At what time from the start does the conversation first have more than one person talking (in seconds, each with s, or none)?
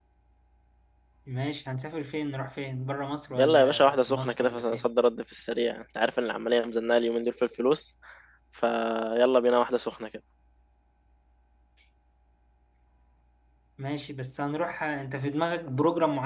3.4 s